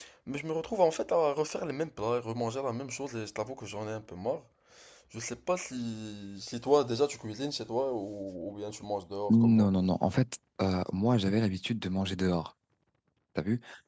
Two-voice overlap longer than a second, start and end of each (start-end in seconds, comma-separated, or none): none